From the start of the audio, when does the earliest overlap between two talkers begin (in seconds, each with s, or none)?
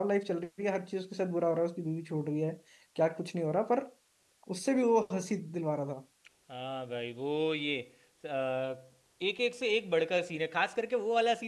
none